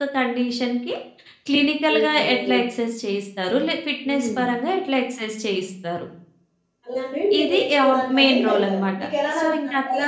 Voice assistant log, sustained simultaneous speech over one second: present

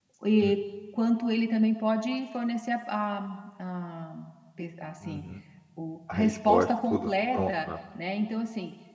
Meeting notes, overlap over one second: present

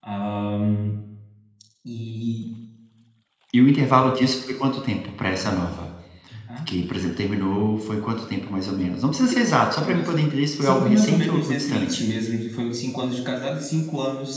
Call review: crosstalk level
present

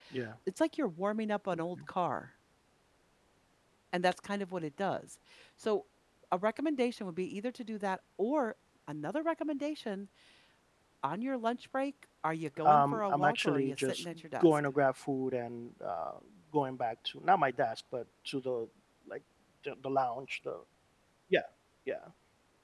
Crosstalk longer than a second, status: present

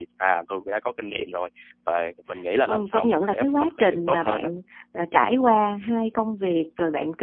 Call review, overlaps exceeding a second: present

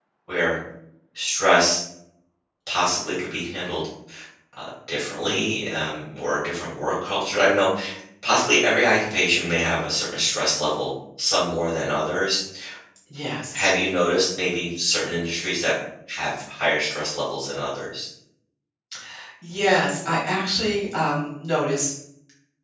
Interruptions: none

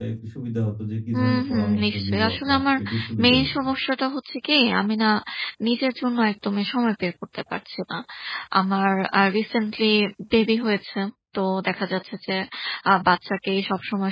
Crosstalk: present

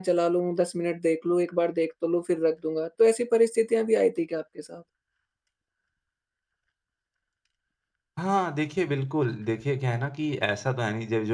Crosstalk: none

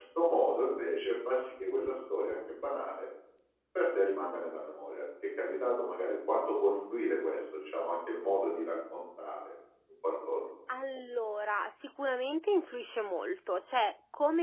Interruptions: none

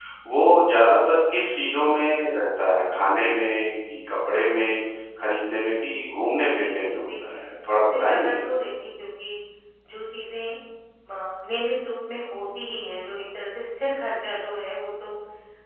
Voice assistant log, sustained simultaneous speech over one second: present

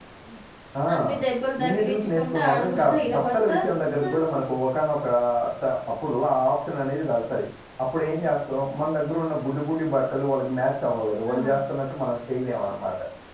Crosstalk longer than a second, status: present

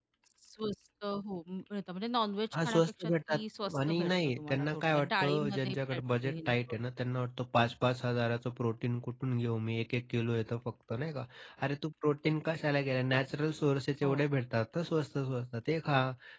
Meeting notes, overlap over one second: present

